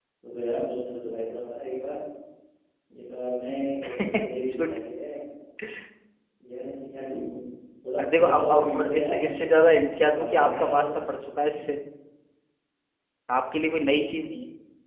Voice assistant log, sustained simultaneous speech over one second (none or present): present